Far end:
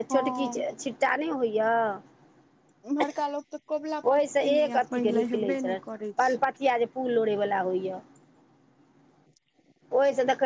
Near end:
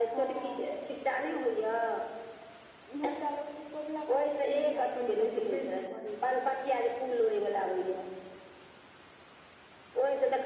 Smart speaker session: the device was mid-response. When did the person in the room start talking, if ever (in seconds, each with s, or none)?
none